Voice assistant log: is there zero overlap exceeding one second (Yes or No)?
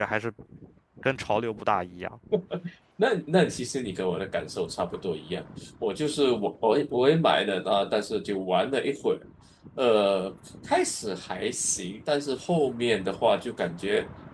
Yes